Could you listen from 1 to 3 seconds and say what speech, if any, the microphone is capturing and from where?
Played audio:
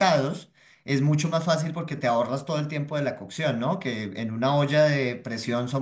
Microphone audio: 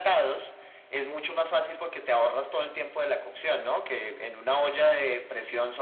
echo only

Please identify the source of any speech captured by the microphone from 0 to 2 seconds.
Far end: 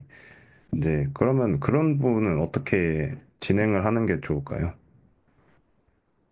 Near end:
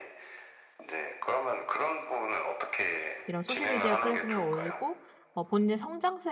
echo only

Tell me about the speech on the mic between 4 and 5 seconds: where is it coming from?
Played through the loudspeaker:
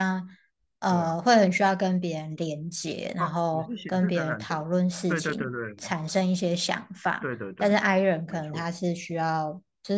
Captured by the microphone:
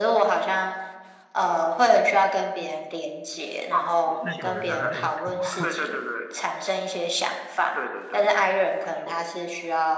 both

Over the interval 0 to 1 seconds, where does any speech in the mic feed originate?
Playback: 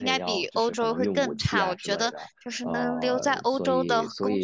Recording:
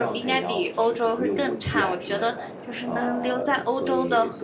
echo only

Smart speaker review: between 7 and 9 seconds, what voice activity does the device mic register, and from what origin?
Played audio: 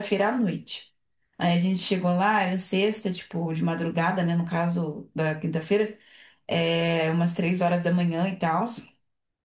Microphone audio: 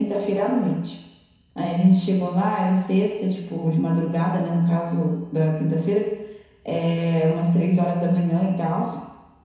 echo only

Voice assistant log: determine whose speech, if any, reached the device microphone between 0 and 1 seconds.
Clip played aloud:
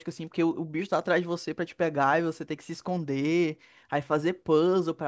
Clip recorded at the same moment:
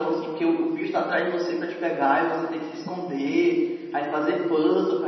echo only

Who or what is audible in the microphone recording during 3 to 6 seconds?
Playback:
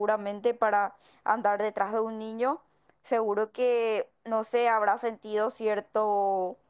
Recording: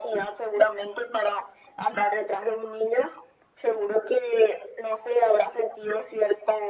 echo only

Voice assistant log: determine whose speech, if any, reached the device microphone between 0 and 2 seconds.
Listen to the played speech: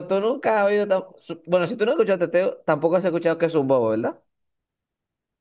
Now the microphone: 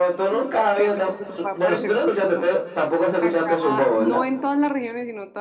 both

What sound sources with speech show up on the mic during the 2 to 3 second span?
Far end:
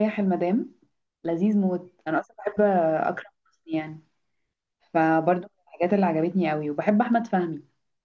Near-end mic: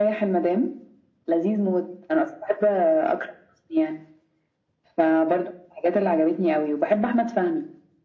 echo only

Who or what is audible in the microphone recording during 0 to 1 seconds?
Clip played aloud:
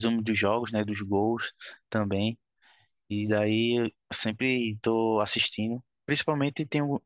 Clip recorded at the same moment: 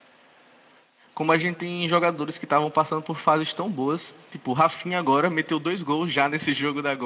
neither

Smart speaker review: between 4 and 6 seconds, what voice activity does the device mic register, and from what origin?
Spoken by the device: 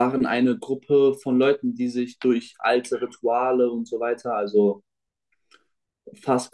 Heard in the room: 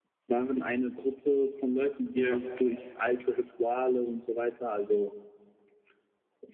echo only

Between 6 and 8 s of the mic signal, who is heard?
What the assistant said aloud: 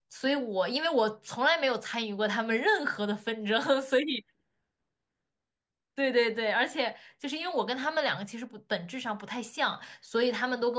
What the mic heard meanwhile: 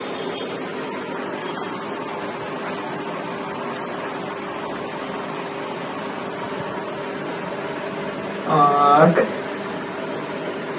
neither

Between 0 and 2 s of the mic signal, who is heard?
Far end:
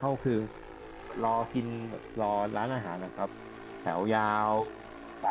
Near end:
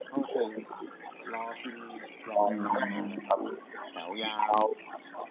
echo only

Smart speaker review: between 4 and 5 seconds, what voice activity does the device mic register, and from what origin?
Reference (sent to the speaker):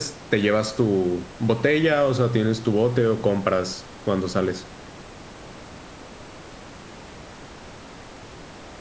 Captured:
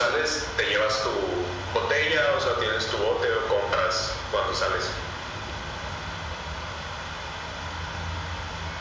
echo only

